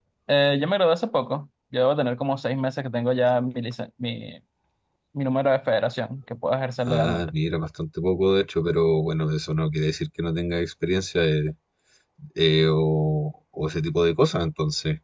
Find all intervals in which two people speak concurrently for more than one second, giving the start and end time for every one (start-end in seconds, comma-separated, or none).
none